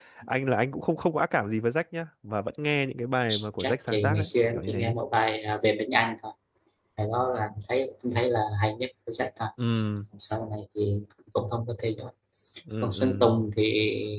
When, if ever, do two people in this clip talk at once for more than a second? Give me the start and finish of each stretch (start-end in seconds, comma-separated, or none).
3.6-4.9